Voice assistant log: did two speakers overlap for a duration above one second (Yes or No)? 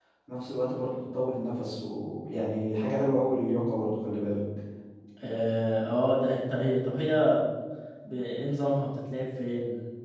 No